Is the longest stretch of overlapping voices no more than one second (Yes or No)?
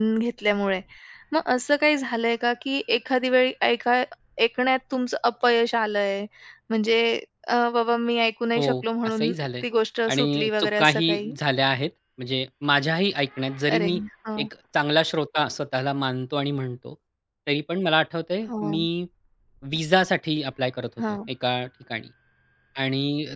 No